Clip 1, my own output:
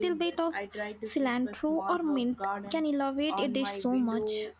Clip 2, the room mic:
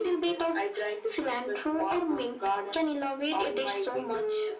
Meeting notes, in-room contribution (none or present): none